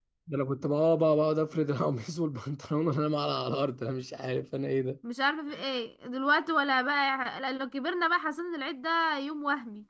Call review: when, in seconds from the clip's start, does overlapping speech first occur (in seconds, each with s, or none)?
none